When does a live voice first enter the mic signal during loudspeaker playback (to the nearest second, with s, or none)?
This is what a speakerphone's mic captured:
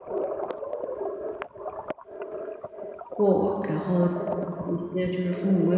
3 s